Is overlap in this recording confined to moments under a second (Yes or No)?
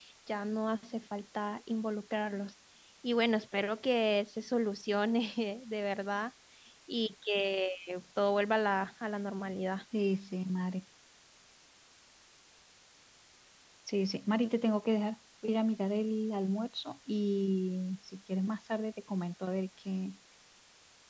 Yes